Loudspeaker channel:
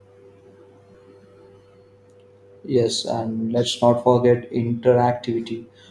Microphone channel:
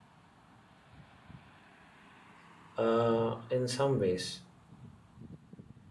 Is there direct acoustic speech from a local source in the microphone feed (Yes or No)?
Yes